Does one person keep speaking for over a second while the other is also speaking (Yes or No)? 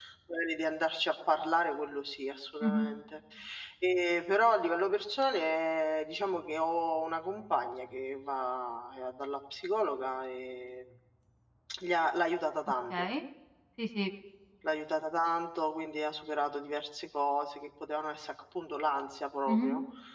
No